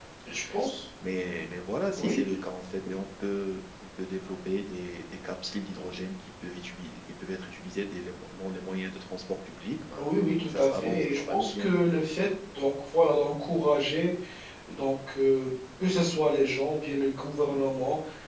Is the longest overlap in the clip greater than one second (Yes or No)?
Yes